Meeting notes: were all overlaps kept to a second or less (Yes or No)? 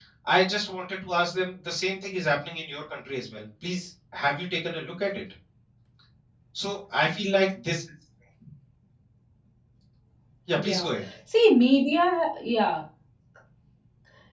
Yes